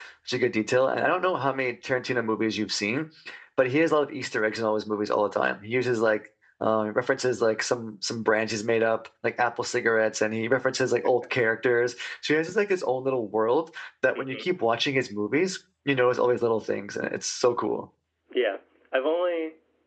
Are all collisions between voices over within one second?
Yes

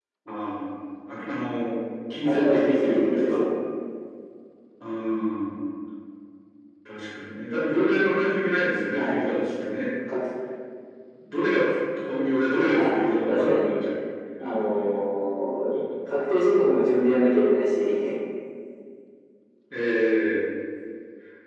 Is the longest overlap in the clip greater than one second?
Yes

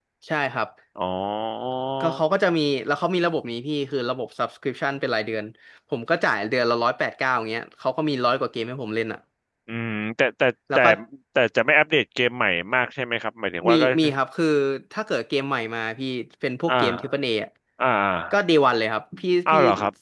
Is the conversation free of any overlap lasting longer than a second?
Yes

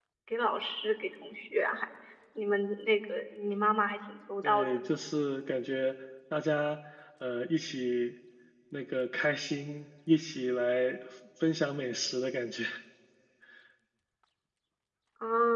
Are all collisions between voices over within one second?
Yes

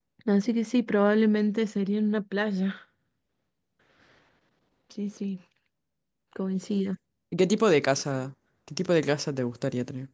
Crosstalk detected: No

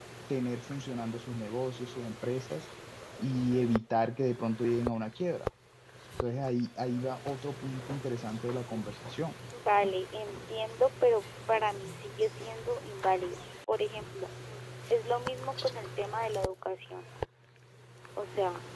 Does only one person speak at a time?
Yes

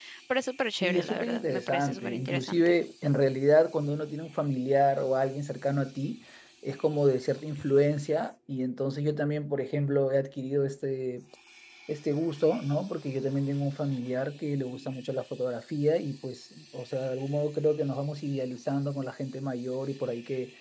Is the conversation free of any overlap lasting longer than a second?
No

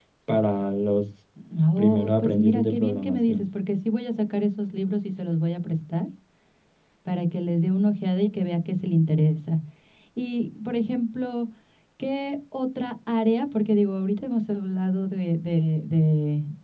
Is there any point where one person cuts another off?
Yes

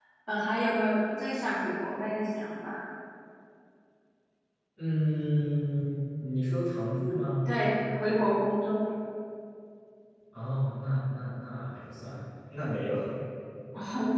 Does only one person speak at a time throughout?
Yes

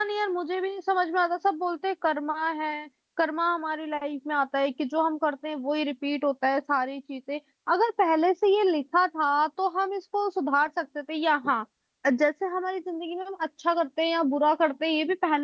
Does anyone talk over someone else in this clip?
No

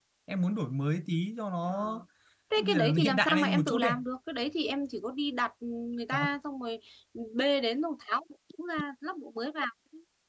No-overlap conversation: No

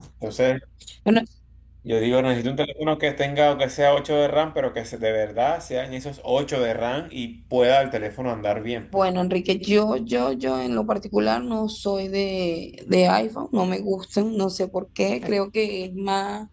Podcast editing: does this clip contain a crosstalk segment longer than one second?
No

